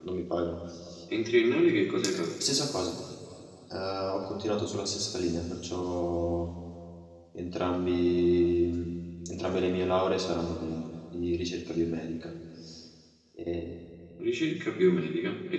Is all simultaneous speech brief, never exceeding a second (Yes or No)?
Yes